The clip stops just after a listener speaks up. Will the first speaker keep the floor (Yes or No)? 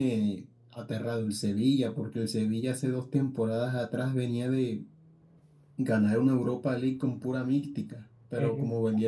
Yes